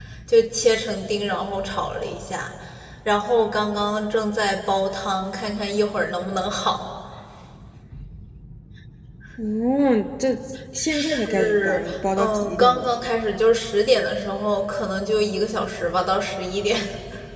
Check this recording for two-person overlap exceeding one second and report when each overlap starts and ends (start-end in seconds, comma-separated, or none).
10.9-12.9